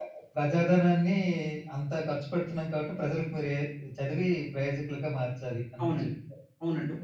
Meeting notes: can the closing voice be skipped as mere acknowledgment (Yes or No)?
No